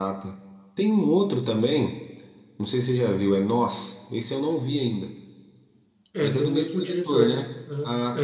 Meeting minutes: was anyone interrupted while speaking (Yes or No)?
Yes